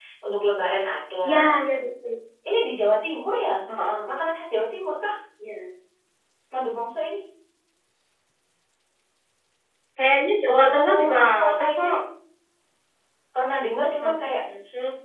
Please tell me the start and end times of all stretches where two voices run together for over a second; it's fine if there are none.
10.5-11.9

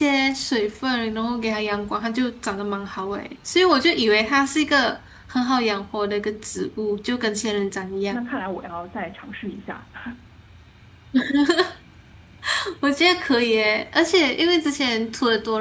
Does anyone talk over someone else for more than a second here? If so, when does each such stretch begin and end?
none

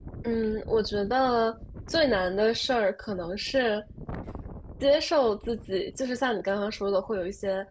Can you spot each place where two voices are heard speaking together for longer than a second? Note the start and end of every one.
none

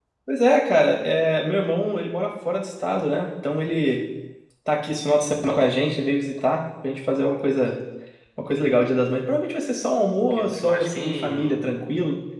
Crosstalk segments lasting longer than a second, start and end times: 10.2-11.6

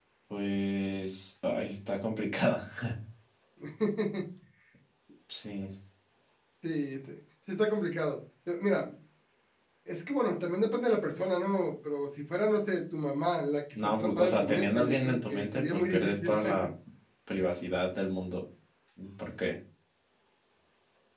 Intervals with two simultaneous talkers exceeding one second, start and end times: 14.0-16.3

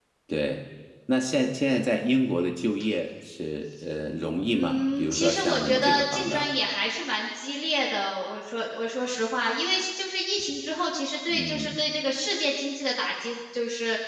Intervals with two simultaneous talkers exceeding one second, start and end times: 4.5-6.5

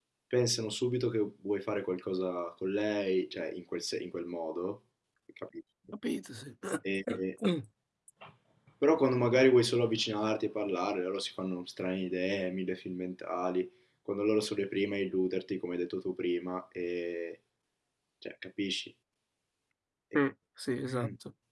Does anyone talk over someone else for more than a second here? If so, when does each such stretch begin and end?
none

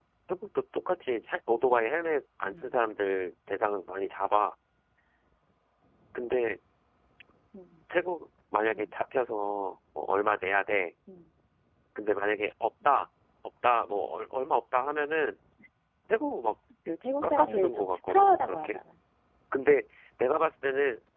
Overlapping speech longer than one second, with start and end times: 17.2-18.8

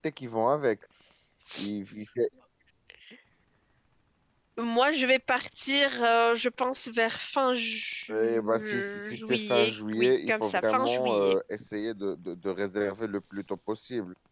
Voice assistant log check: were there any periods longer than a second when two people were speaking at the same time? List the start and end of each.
8.1-11.4

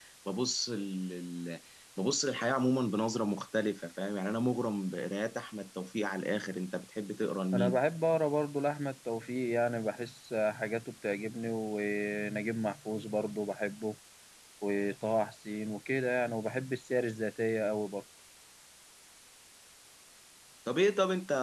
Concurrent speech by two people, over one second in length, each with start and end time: none

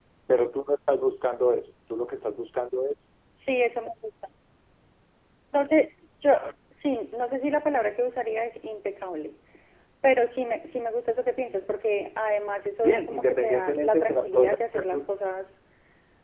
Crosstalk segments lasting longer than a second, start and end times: 12.8-15.0

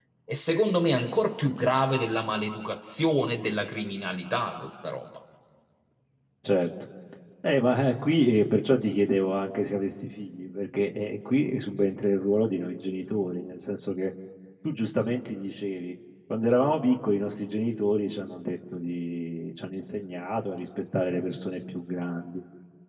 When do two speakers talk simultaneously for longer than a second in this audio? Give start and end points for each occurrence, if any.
none

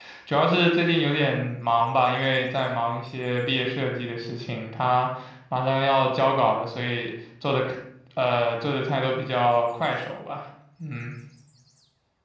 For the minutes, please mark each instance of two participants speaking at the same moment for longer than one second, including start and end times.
none

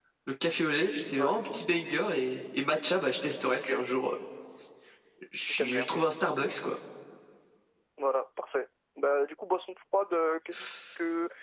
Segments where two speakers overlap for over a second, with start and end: none

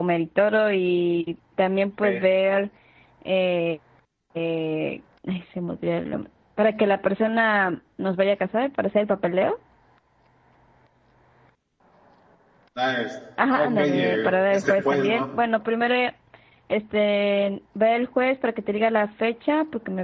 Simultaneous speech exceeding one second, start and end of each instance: 13.5-15.2

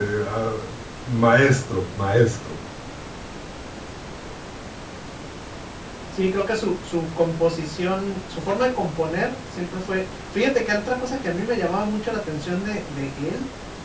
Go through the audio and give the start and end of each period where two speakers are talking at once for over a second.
none

